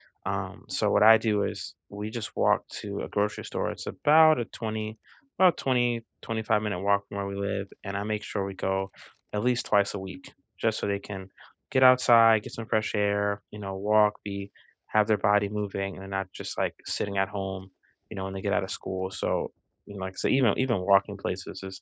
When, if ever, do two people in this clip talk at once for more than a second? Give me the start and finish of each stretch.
none

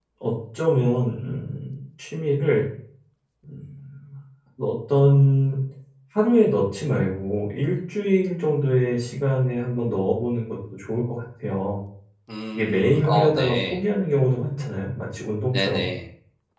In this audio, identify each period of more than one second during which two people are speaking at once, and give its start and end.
12.5-13.8

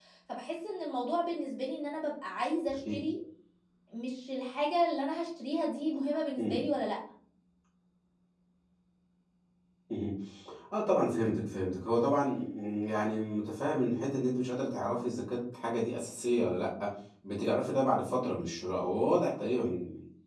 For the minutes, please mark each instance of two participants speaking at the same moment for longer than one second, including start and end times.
none

